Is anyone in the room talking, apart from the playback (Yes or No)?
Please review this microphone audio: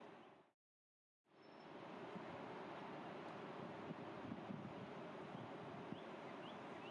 No